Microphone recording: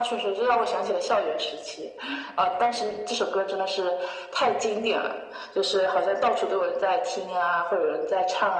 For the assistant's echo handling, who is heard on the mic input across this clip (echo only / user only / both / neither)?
echo only